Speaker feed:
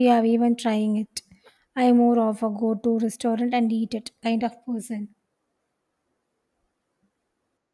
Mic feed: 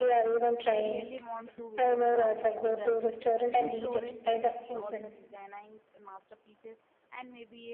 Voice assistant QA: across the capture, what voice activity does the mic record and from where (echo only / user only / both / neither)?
both